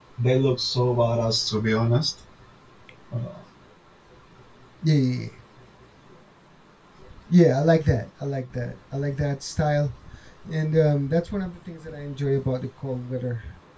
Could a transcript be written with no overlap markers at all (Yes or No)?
Yes